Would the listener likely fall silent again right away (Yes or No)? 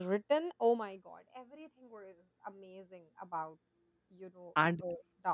No